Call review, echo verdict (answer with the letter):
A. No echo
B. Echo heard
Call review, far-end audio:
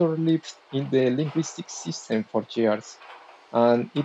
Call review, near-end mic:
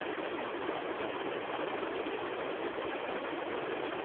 A